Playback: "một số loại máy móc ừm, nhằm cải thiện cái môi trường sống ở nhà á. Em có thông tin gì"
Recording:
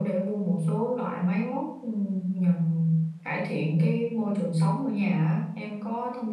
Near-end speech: none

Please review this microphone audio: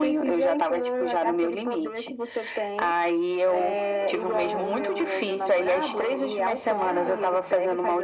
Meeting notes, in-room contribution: present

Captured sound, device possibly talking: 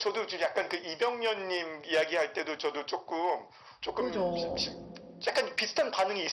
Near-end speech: present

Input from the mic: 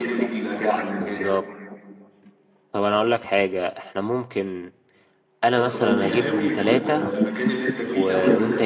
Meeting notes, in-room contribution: present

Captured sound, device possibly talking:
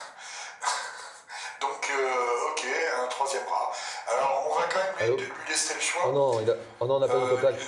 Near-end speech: present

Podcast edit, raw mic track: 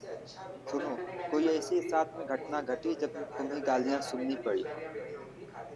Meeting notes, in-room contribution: present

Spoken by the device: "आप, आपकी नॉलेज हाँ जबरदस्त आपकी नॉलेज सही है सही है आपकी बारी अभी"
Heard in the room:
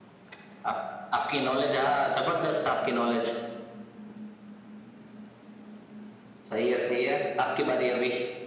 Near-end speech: none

